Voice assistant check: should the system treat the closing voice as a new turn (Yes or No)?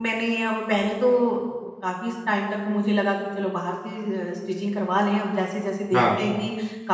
No